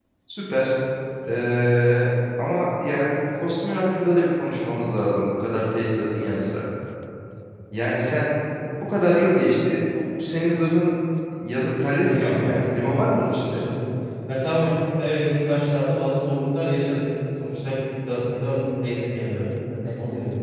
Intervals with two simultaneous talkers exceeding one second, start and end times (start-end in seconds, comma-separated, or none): 12.0-13.7